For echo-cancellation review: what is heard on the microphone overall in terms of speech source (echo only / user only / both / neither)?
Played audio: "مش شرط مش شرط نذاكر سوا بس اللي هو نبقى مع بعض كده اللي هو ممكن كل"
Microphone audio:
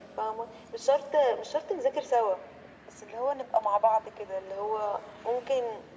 echo only